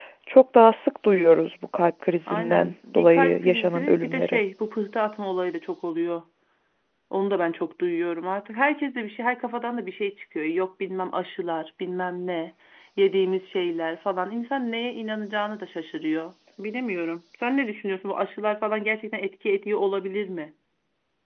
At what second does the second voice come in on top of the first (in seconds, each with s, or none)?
2.3 s